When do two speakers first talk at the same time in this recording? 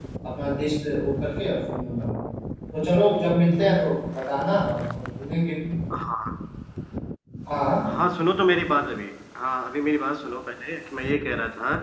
none

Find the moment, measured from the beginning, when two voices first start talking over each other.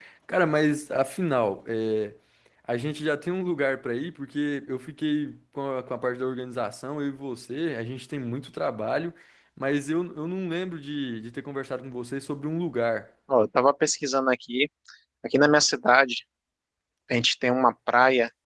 none

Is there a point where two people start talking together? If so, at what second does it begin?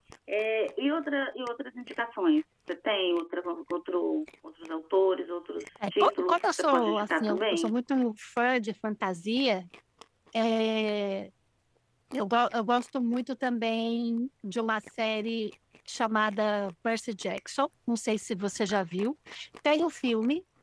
5.8 s

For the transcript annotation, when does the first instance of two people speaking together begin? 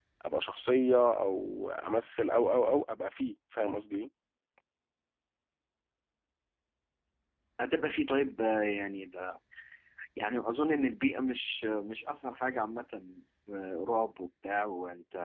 none

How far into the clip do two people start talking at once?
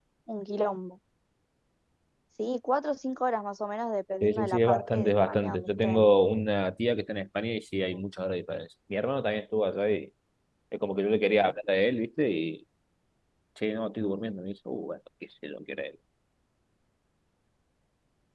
4.2 s

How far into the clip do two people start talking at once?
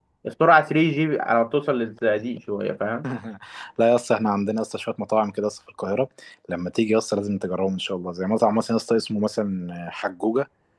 none

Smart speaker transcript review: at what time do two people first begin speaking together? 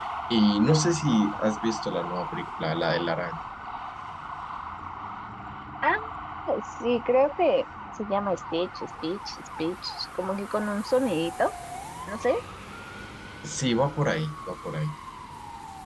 none

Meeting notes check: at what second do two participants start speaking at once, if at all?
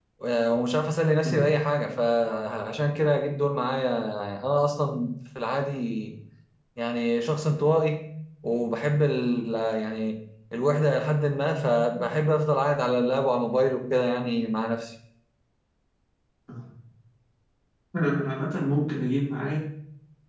none

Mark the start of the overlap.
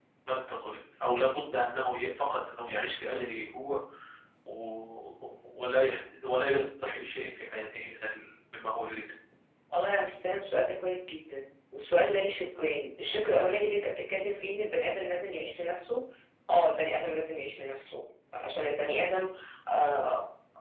none

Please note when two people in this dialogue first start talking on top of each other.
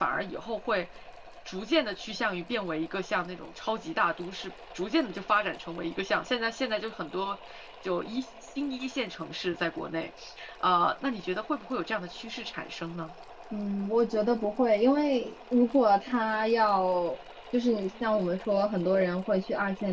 none

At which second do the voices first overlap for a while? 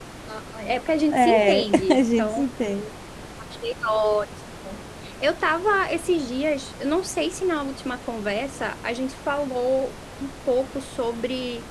1.1 s

